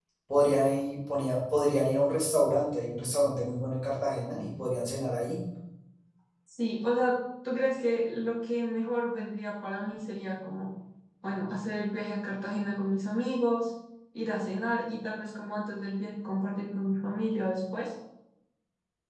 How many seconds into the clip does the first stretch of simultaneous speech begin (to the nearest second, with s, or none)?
none